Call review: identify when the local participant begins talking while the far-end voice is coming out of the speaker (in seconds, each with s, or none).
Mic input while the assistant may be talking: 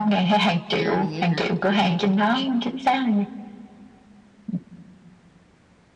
0.7 s